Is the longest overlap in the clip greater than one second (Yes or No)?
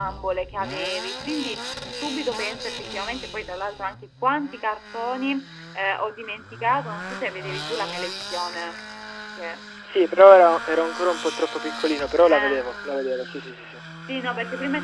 No